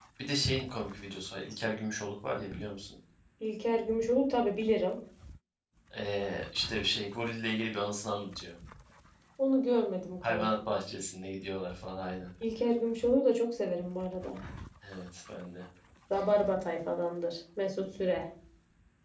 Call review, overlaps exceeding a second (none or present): none